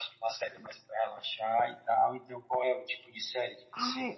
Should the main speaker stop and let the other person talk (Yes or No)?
Yes